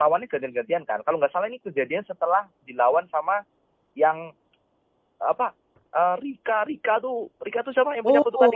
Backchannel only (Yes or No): No